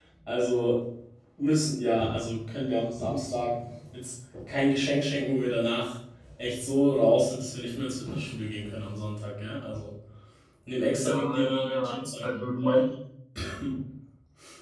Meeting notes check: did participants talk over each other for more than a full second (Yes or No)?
Yes